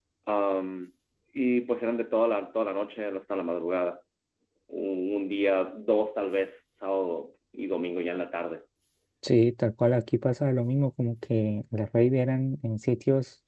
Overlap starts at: none

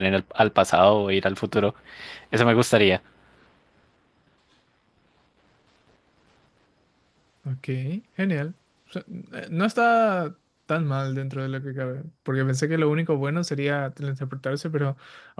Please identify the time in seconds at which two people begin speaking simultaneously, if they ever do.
none

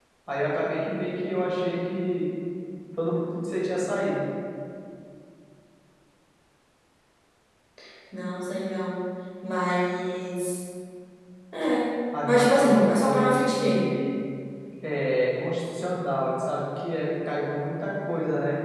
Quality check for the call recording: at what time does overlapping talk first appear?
12 s

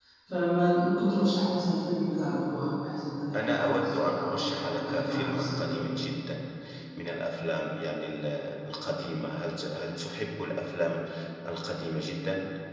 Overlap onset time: 3 s

